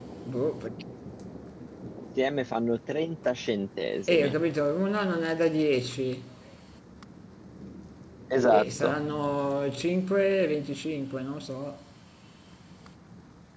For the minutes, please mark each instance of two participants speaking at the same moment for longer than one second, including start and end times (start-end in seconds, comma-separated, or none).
none